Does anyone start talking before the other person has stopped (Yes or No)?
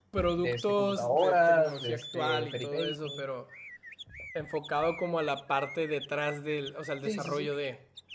Yes